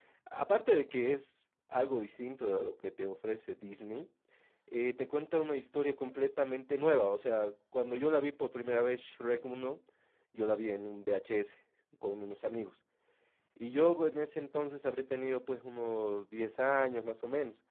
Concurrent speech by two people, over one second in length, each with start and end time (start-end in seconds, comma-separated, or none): none